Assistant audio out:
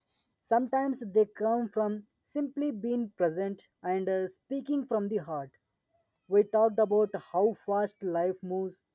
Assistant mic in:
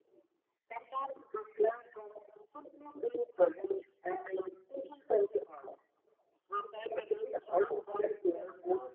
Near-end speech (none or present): present